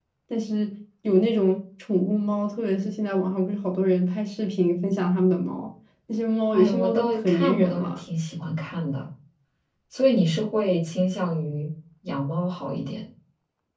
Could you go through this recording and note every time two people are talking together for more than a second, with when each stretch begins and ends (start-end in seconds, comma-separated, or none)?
6.5-8.0